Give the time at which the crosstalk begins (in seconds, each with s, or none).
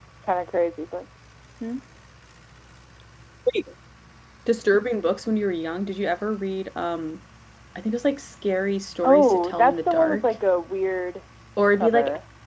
9.0 s